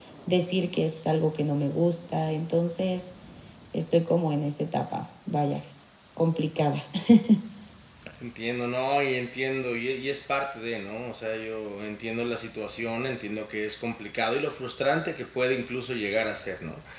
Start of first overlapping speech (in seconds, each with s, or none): none